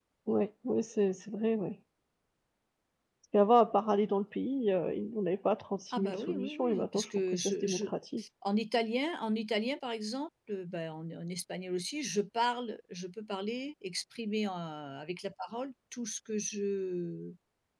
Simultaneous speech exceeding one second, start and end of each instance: 5.9-7.9

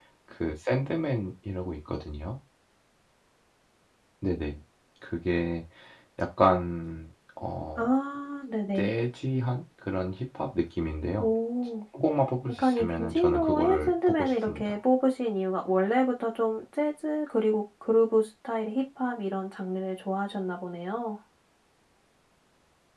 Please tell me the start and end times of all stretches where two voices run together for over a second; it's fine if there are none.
12.5-14.7

